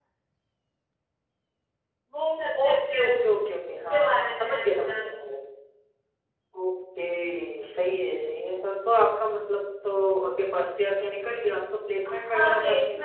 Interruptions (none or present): present